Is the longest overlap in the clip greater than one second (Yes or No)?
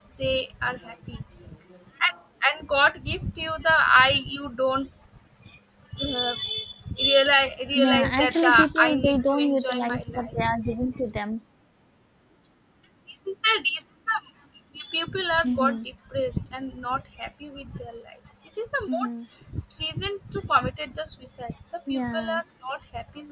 Yes